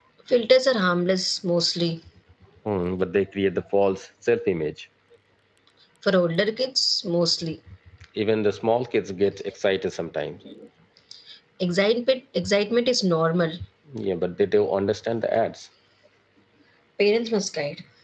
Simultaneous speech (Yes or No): No